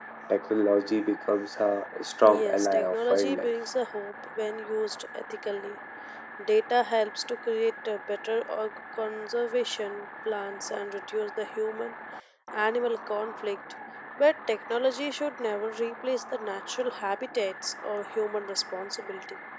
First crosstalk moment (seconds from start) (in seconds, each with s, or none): 2.2 s